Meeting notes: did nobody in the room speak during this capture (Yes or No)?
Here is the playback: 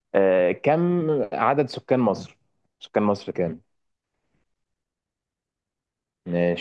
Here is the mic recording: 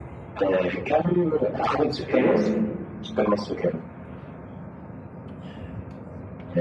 No